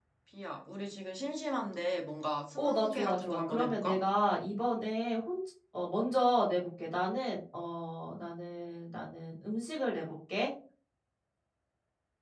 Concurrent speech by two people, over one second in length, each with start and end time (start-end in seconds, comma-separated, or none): 2.6-4.0